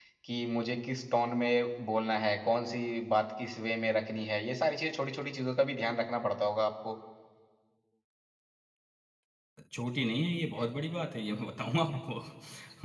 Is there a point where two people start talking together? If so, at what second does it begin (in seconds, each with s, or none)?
none